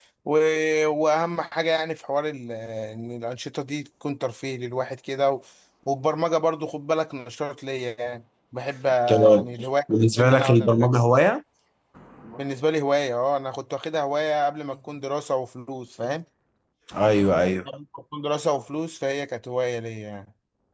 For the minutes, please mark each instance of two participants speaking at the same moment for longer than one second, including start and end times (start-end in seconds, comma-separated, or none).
9.9-11.3